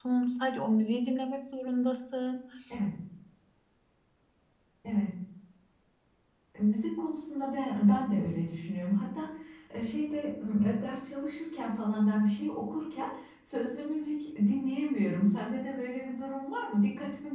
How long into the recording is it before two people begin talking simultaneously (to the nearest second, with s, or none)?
none